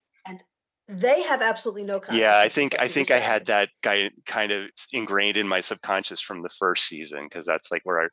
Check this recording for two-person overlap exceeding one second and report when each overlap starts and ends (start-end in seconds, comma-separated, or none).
2.1-3.5